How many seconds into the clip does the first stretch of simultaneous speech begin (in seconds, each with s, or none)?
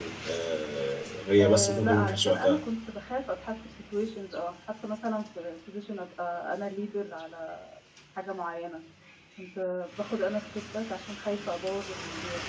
1.4 s